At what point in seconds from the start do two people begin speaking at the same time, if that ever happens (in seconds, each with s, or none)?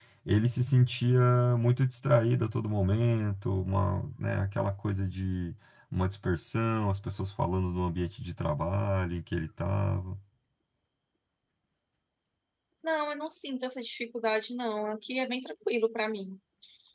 none